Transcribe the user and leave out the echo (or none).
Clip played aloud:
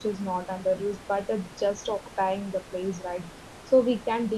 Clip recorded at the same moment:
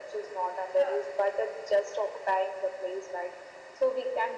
yeah.